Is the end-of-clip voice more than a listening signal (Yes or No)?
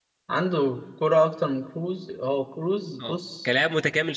Yes